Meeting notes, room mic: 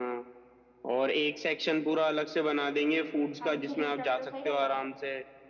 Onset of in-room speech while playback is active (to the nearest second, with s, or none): 3 s